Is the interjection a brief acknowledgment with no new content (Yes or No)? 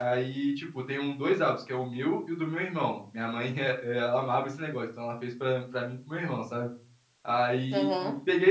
Yes